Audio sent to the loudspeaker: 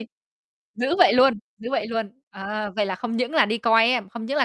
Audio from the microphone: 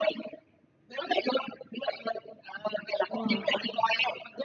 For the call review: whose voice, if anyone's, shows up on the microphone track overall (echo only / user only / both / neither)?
both